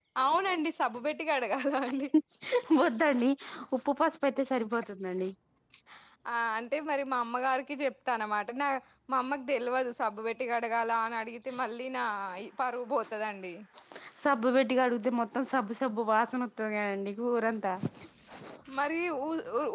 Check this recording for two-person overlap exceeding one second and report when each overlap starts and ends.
none

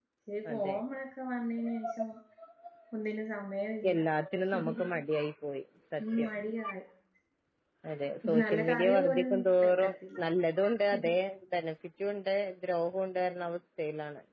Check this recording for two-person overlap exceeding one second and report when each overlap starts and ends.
8.4-10.2

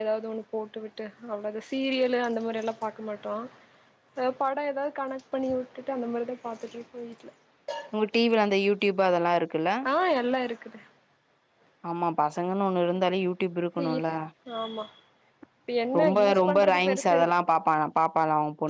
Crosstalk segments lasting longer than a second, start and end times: 16.0-17.2

